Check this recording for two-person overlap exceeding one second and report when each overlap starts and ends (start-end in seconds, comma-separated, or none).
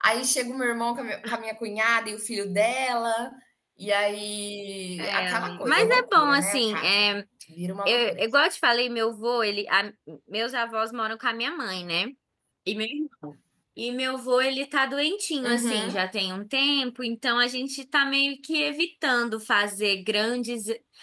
5.0-7.0